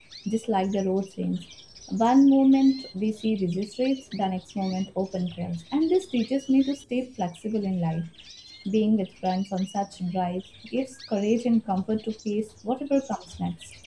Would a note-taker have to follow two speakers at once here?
No

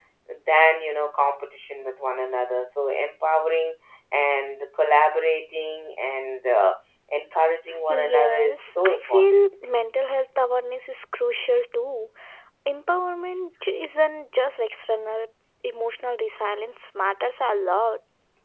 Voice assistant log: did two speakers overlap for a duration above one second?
Yes, from 7.9 s

